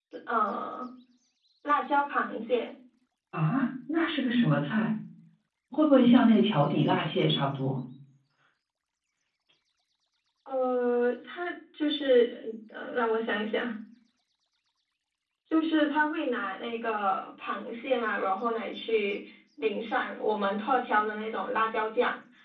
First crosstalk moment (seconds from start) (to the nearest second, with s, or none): none